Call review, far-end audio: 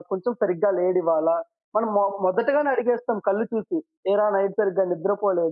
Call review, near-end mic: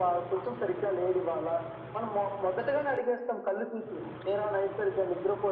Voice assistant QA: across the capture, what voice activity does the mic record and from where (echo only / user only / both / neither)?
echo only